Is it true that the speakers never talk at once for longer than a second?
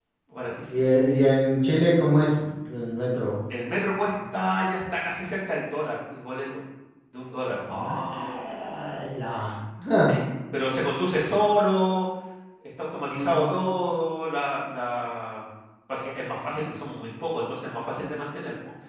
Yes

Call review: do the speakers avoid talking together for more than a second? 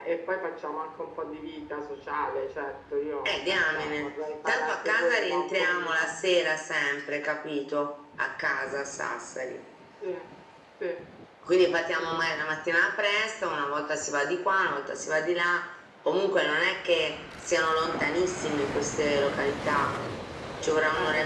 No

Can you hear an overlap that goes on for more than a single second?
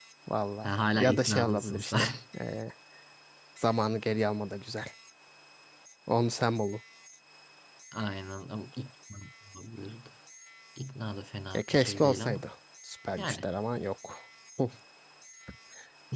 Yes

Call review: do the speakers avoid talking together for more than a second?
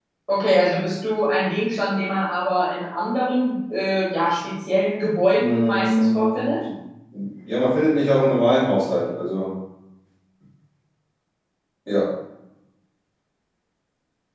No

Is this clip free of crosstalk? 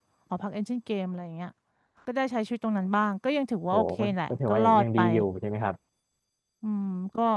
No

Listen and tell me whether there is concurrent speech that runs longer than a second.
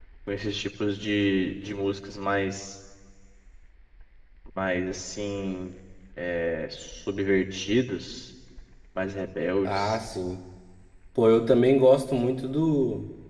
No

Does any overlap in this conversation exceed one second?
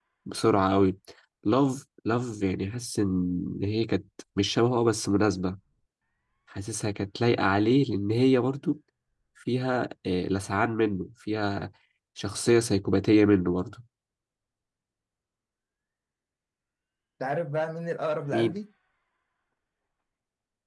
No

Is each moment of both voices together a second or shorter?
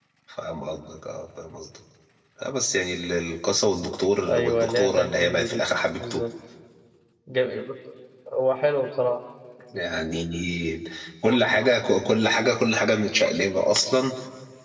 No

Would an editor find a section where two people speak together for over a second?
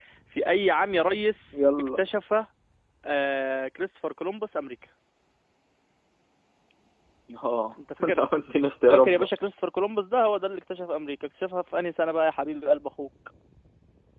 No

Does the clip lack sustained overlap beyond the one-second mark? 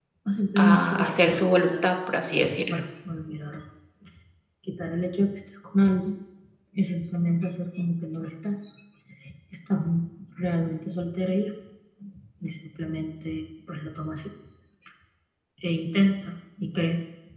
No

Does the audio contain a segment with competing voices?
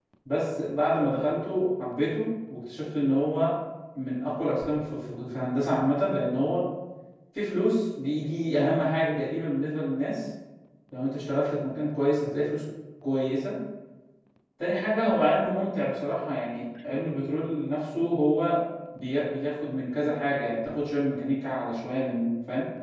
No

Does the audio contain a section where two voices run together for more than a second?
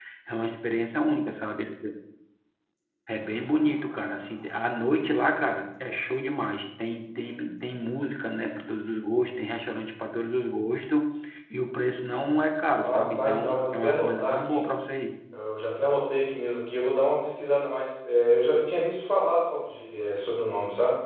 Yes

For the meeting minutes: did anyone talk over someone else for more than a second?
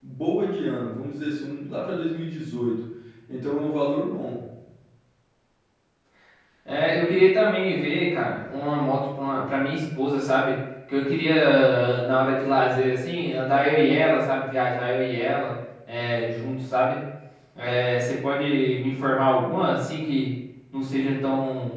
No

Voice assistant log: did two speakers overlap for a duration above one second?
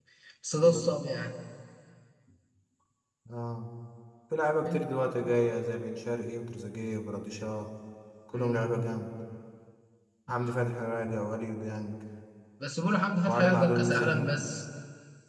Yes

